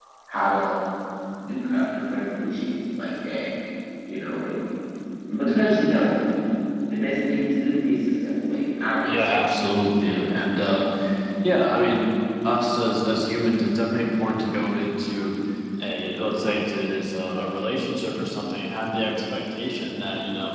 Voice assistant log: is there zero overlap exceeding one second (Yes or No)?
Yes